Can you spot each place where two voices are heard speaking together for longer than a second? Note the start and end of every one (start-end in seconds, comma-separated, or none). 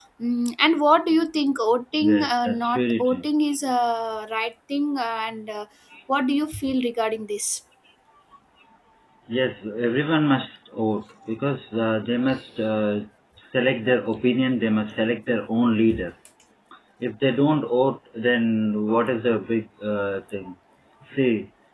2.0-3.2